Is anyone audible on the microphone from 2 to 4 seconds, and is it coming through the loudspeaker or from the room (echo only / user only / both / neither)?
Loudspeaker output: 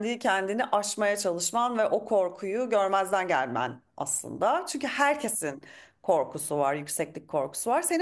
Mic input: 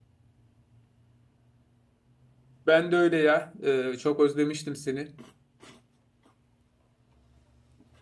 user only